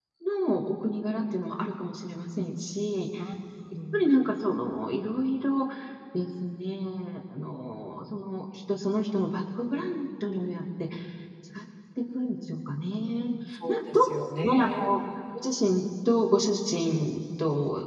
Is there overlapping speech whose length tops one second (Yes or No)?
No